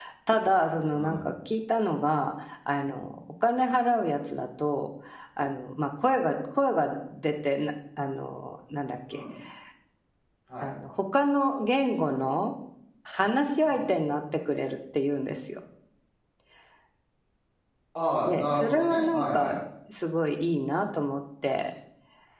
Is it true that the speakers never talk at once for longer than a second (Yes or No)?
No